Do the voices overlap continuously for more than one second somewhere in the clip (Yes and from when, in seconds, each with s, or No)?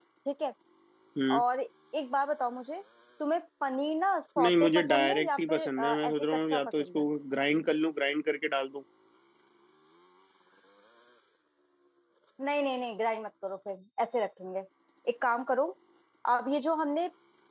Yes, from 4.4 s